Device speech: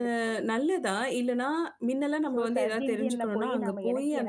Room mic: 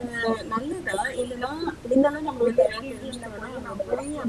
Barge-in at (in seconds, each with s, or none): none